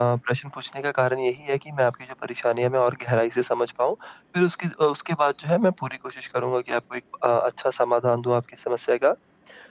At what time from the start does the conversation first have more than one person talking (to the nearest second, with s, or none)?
none